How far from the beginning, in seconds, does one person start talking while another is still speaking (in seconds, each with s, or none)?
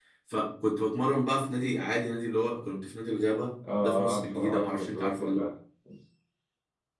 3.6 s